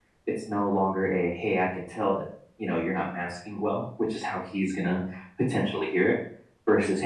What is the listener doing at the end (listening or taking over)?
listening